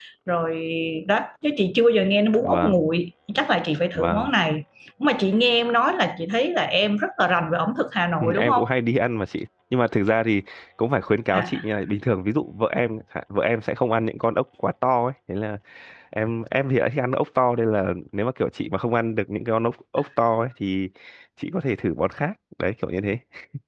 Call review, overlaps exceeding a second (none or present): none